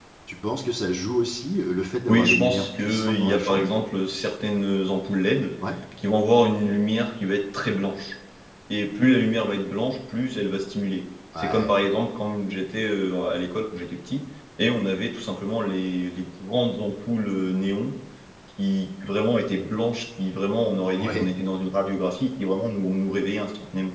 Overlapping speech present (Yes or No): Yes